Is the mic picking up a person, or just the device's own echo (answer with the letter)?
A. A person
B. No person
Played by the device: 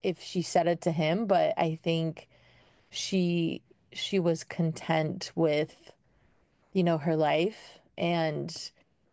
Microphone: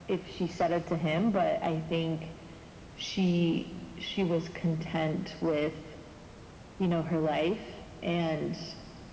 B